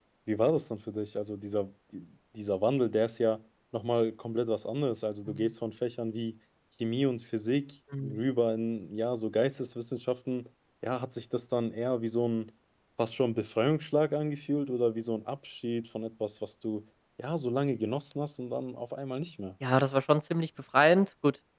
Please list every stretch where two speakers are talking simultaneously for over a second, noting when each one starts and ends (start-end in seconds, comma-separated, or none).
none